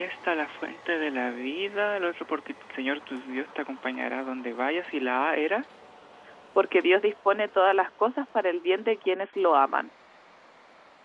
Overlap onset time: none

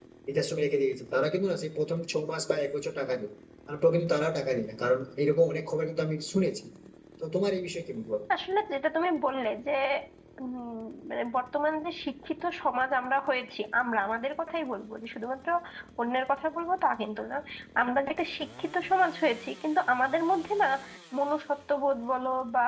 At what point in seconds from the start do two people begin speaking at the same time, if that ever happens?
none

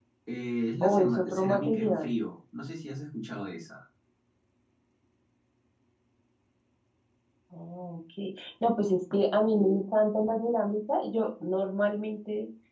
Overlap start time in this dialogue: 1 s

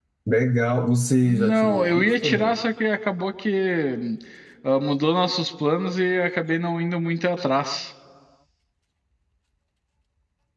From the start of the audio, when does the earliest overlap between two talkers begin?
1 s

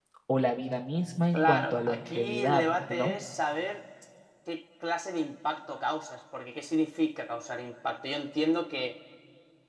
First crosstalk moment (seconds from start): 1 s

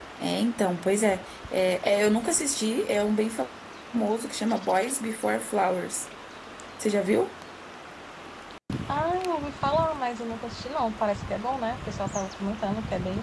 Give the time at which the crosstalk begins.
none

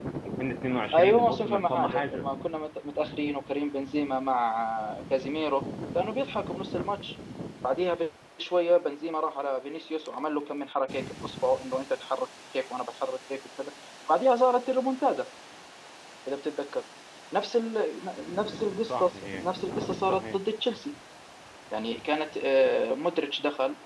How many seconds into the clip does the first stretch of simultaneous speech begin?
1 s

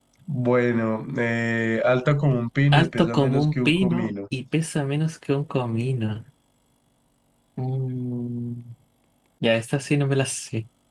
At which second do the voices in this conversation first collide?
3 s

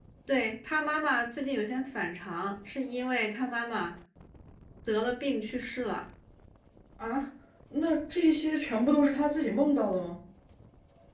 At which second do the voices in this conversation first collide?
none

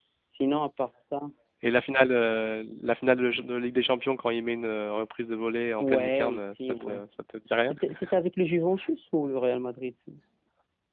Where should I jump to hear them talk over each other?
6 s

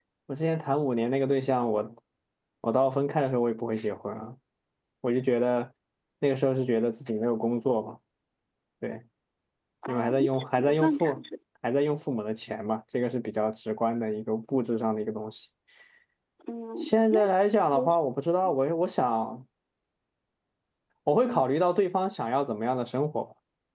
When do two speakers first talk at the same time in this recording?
10 s

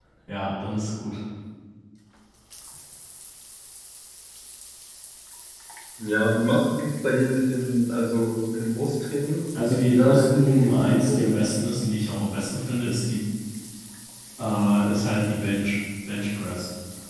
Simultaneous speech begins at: 10 s

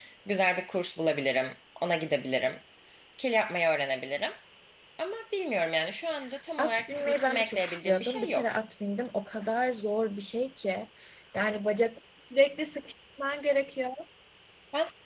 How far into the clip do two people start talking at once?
7 s

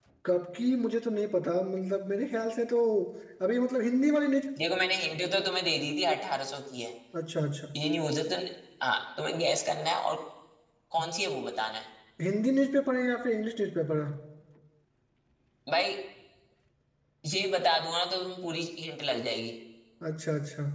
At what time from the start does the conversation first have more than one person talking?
none

